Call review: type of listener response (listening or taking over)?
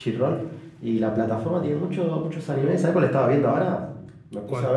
listening